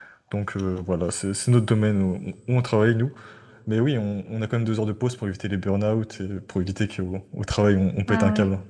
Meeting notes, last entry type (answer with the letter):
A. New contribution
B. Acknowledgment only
A